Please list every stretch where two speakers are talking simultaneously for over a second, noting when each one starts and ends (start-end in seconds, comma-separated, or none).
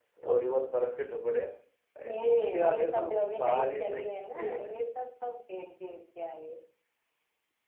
2.0-4.8